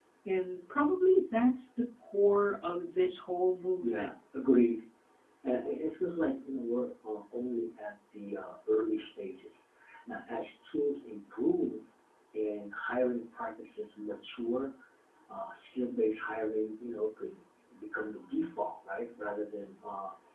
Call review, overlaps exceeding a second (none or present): none